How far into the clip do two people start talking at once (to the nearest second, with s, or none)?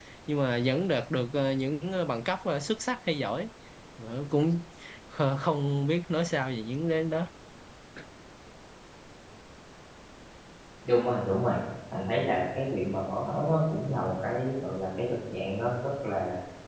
none